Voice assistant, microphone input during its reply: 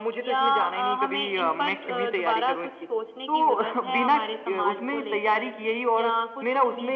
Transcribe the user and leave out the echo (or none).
none